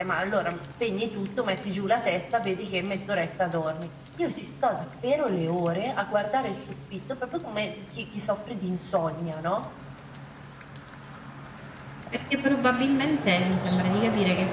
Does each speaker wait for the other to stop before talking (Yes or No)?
Yes